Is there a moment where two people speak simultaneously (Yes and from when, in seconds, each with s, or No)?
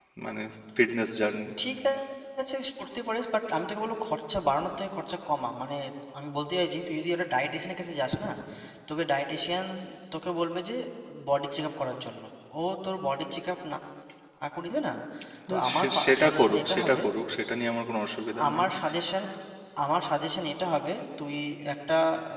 Yes, from 15.5 s